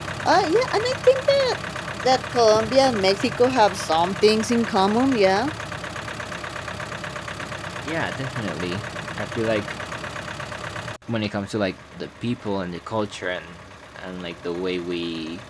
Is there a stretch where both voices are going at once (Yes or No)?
No